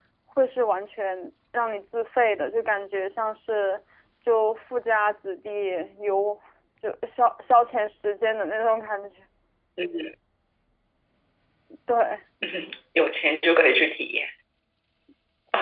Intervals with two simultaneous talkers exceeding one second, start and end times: none

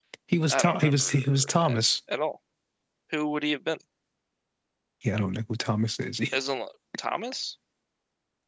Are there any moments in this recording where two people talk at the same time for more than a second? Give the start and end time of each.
0.5-1.8

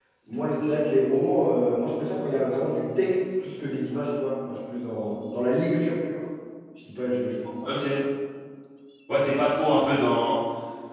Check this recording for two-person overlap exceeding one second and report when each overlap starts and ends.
none

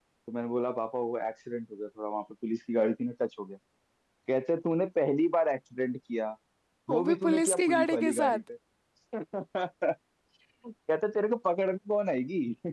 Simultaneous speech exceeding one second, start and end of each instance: 6.9-8.4

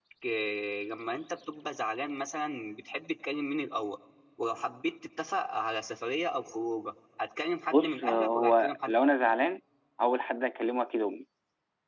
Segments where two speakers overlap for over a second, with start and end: 7.7-8.9

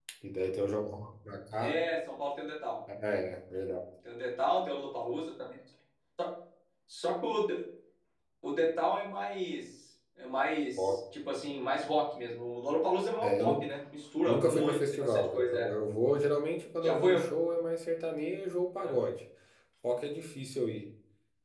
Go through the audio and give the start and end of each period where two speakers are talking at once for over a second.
14.2-15.7

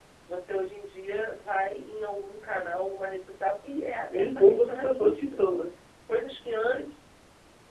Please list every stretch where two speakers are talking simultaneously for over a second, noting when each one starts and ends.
4.1-5.4

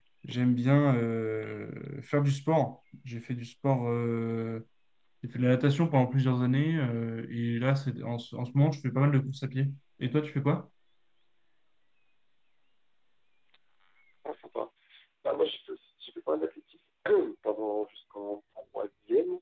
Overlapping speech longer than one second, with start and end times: none

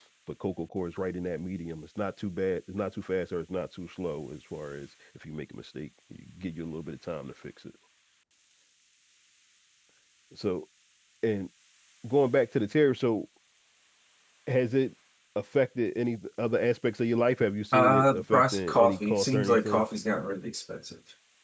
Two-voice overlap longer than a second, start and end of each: 17.7-19.8

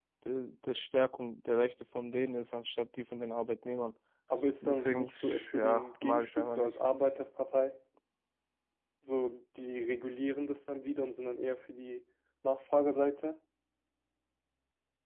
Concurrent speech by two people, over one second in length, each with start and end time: 4.6-6.8

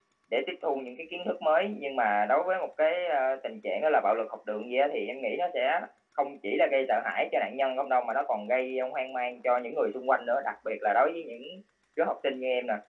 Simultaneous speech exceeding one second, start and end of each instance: none

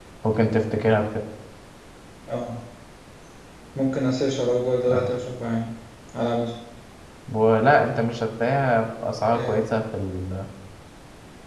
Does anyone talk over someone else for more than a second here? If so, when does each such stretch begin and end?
none

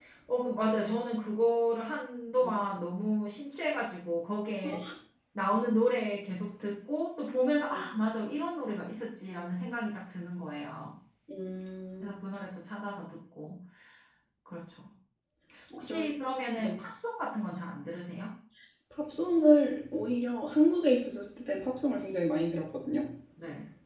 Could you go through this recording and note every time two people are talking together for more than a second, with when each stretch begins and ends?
none

